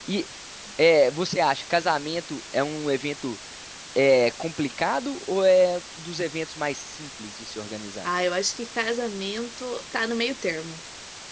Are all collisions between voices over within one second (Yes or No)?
Yes